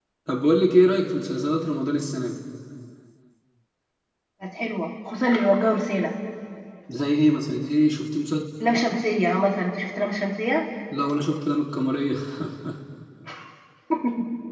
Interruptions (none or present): none